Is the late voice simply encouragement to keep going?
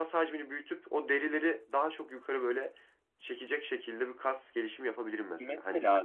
No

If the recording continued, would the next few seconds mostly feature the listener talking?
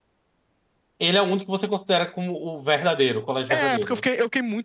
Yes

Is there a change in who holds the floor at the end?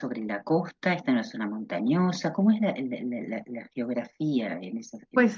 Yes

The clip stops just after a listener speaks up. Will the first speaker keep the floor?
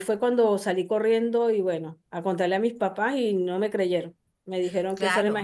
No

